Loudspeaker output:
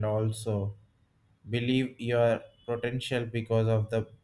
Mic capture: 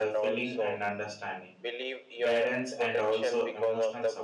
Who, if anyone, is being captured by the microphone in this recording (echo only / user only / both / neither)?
both